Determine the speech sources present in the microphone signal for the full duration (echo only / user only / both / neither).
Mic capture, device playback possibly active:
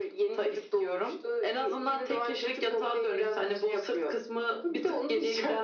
echo only